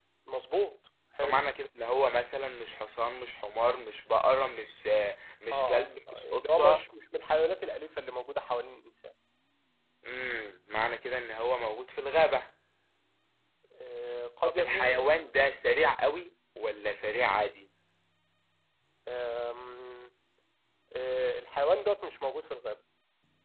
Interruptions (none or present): present